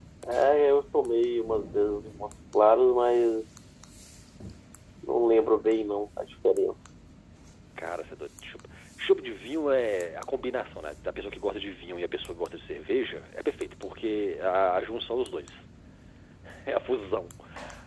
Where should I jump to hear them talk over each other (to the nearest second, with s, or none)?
none